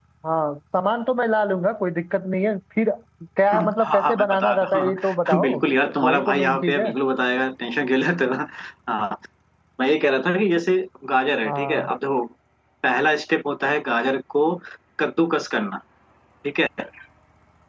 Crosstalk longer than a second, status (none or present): present